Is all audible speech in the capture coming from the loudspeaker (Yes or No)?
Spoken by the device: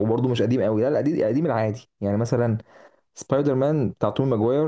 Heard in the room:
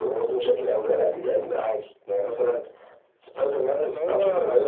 No